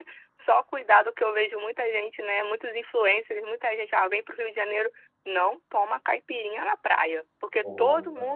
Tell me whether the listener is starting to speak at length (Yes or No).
No